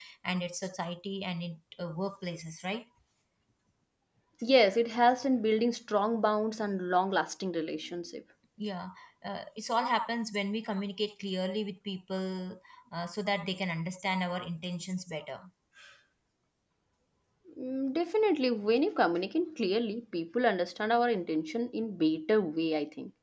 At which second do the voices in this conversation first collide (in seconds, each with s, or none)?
none